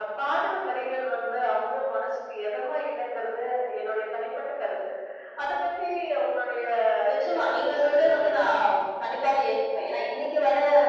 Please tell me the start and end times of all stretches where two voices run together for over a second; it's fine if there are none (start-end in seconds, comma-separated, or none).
7.1-8.5